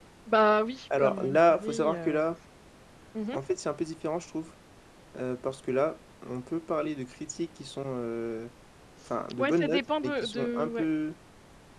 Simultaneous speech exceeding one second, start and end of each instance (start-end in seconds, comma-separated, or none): 1.0-2.3, 9.4-10.8